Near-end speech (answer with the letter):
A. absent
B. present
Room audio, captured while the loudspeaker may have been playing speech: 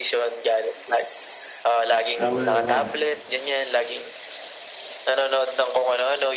B